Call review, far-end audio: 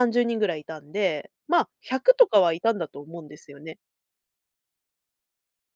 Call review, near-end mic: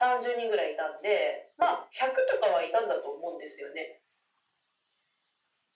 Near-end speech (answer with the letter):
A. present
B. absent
B